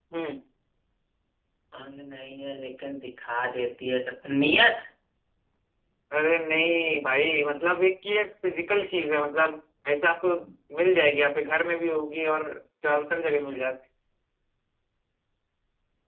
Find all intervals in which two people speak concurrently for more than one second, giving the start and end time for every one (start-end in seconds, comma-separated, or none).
none